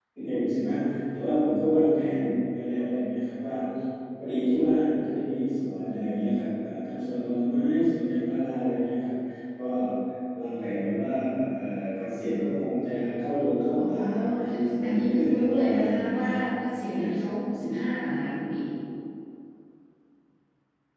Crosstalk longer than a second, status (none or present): present